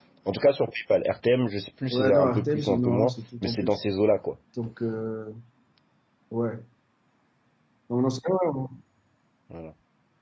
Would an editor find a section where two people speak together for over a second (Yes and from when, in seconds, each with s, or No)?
Yes, from 1.9 s